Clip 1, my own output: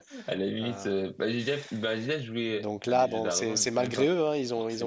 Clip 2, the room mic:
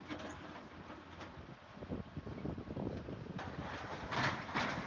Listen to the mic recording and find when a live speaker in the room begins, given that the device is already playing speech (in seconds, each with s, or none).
none